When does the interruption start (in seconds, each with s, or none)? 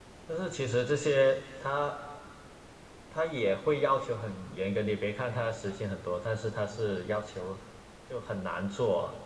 none